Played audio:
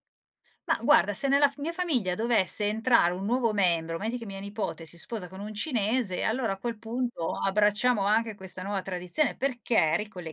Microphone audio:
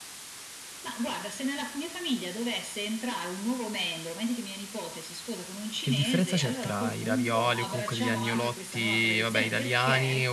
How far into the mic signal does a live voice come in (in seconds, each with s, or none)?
5.8 s